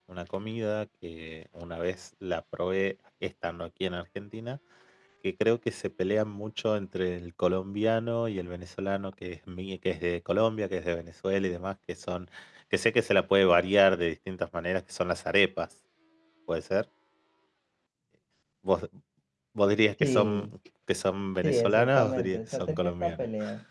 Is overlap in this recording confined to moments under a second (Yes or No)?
No